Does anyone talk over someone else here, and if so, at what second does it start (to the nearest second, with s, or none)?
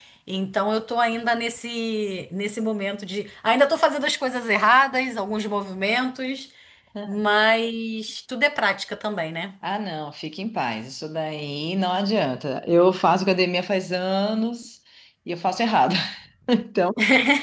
none